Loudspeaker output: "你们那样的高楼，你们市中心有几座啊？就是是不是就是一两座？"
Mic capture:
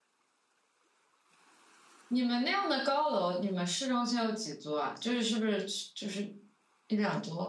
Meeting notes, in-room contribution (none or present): none